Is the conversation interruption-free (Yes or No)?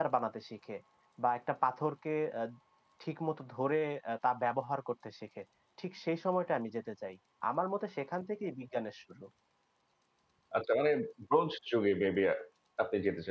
Yes